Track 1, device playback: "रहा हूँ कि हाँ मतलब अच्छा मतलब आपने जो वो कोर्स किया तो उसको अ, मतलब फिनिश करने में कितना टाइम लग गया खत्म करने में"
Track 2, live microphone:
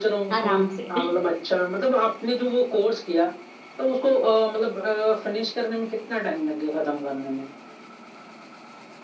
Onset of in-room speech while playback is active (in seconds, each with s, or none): 0.4 s